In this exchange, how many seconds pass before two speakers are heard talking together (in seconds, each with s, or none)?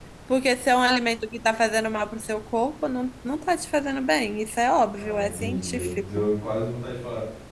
5.0 s